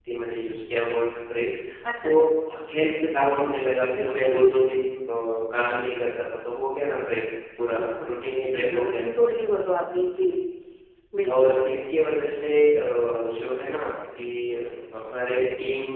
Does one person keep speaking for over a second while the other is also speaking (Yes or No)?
Yes